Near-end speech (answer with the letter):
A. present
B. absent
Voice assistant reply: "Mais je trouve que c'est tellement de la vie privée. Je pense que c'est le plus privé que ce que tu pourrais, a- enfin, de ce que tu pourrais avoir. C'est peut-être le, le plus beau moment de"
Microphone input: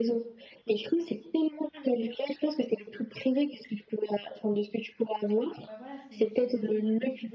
A